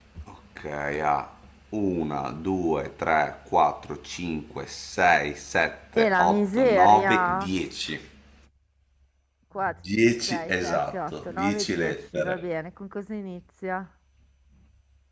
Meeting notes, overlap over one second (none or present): present